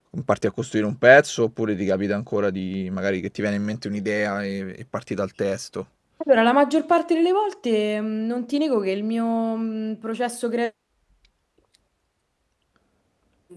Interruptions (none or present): none